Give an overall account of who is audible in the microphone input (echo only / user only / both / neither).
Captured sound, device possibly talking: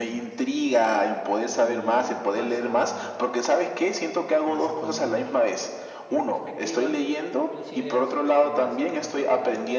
both